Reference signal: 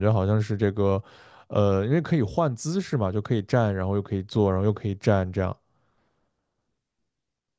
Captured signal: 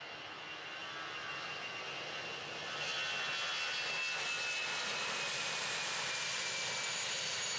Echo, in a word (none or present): none